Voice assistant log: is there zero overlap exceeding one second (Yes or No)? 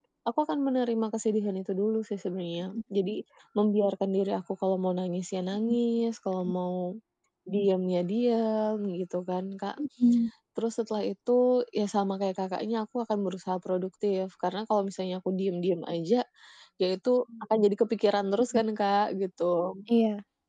Yes